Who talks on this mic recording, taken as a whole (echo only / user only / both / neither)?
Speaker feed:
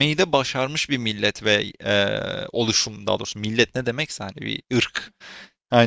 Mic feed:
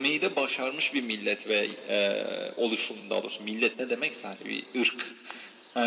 echo only